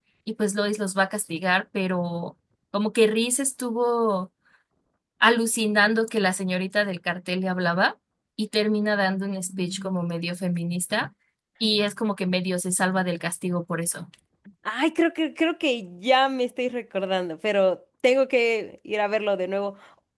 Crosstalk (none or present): none